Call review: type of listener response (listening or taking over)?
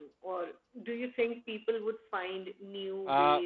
taking over